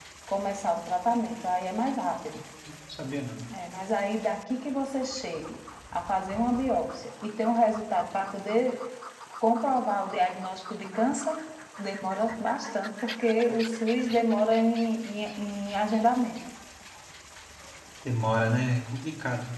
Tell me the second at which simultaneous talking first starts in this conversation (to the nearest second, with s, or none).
none